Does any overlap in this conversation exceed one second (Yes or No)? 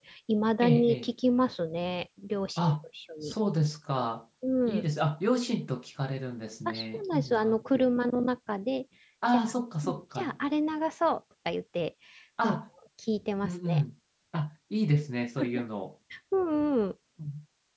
Yes